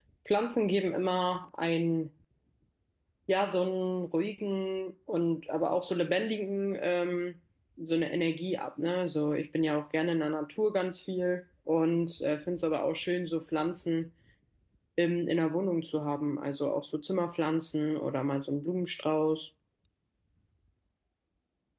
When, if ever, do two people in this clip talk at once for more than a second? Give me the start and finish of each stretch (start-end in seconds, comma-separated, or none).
none